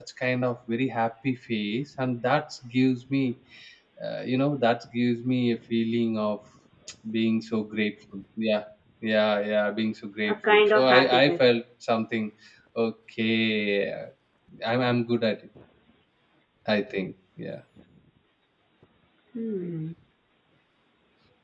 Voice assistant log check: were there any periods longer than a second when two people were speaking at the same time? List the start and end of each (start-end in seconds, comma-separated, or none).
10.3-11.6